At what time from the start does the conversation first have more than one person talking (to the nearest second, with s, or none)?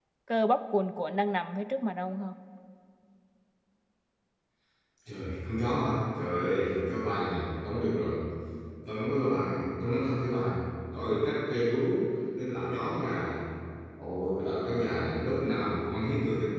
none